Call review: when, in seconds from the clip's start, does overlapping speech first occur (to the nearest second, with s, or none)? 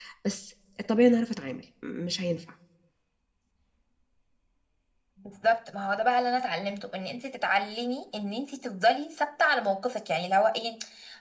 none